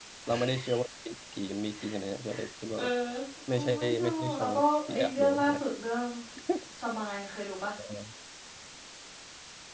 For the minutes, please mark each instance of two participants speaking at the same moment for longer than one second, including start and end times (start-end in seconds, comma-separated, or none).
3.8-5.5